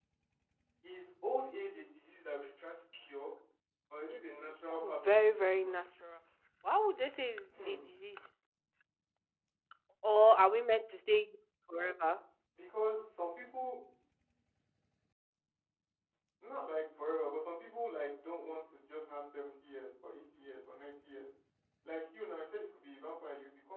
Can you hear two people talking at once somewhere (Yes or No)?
Yes